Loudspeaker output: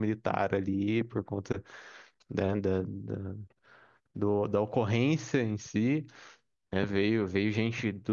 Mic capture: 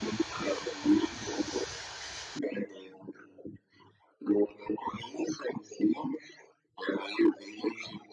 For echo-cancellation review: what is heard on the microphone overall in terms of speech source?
echo only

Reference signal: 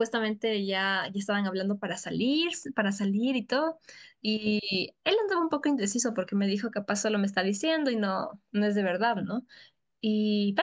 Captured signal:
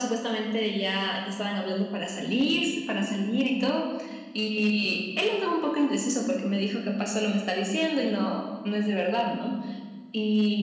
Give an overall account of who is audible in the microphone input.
echo only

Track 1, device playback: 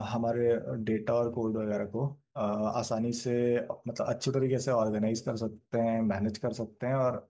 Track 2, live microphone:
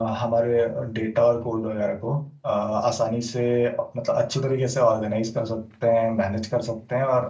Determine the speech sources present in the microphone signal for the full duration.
echo only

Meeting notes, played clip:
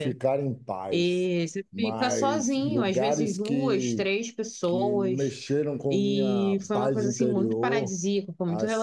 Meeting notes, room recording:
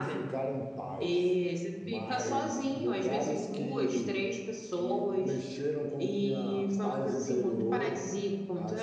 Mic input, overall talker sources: echo only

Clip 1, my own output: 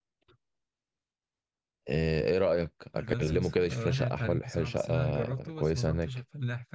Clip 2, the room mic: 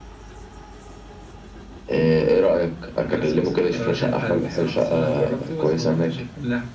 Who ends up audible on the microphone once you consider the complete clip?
echo only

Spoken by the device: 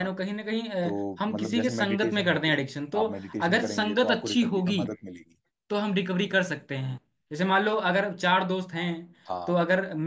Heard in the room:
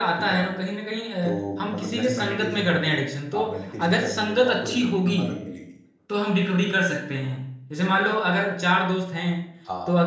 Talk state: echo only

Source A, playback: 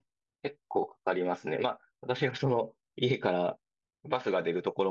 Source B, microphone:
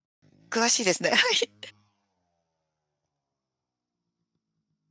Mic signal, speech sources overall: user only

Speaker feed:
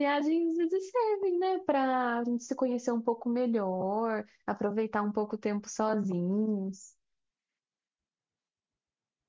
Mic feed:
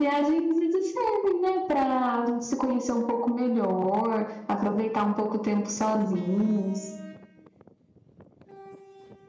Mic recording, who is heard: echo only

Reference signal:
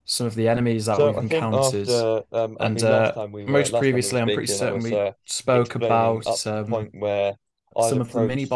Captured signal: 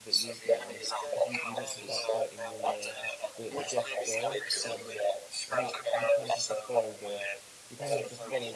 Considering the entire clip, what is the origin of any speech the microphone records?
both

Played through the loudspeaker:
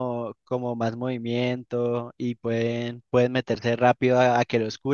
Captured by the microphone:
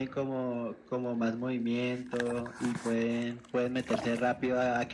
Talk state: echo only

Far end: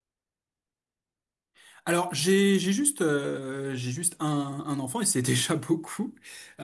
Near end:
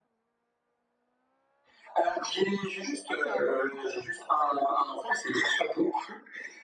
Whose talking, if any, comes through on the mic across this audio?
both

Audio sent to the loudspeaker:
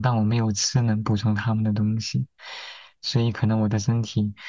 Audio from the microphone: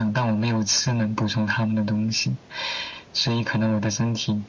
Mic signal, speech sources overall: echo only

